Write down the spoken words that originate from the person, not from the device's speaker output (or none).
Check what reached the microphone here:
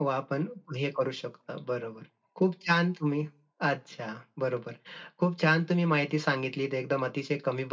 none